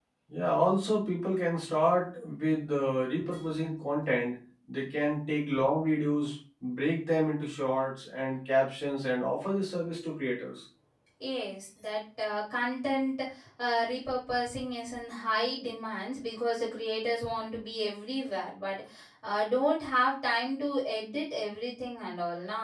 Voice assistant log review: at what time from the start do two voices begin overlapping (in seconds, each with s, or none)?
none